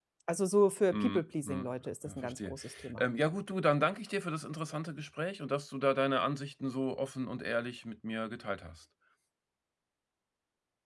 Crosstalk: present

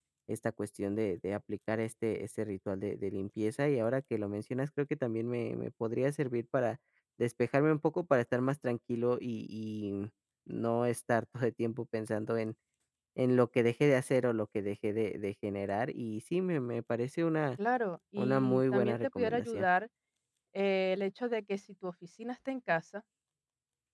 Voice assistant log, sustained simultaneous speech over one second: present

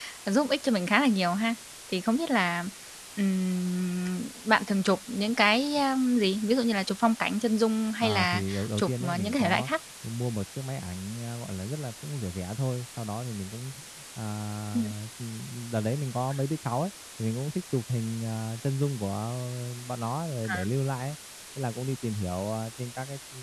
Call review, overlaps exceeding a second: present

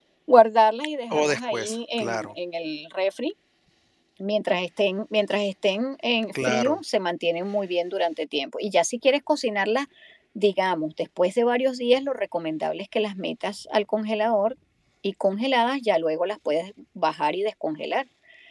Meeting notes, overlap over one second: present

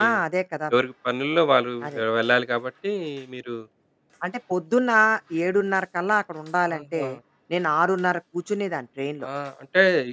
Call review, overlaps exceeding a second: none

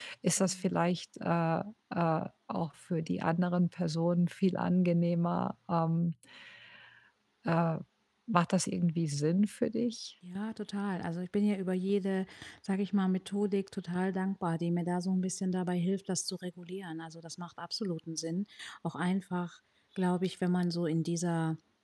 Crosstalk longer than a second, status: none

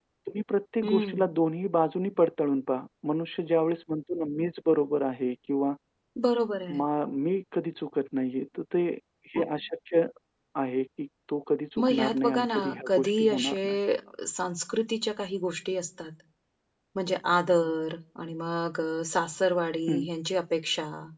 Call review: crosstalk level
present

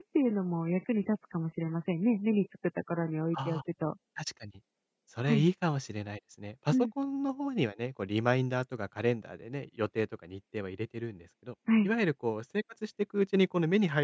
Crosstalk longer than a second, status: none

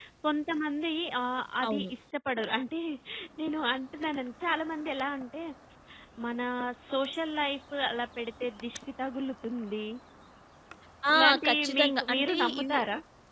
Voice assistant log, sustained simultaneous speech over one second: present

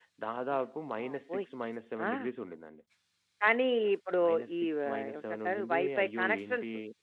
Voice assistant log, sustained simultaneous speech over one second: present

